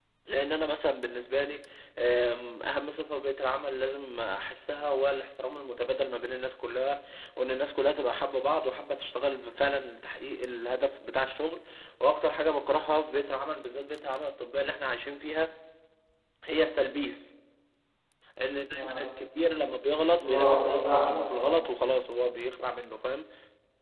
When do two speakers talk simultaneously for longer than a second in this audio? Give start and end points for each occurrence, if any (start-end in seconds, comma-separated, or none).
20.2-21.6